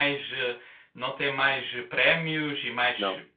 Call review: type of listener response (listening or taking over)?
listening